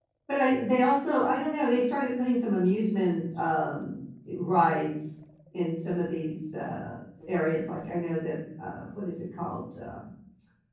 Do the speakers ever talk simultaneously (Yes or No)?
No